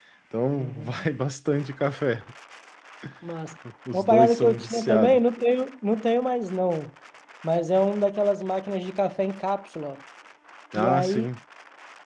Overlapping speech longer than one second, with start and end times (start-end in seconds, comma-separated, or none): 3.9-5.2